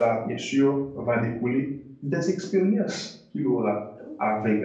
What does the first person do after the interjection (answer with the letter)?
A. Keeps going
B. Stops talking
A